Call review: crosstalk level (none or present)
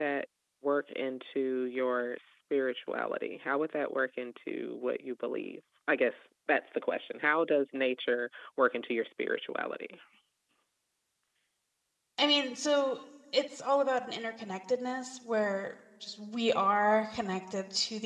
none